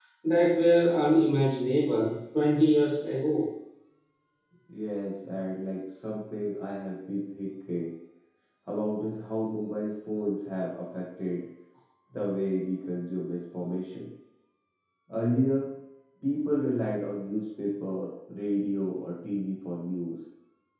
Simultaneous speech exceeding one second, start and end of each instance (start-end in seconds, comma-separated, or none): none